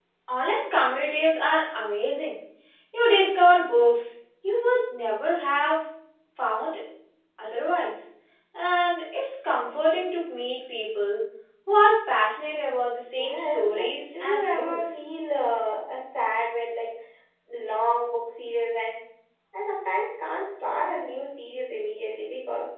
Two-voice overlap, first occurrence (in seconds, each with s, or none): 13.1 s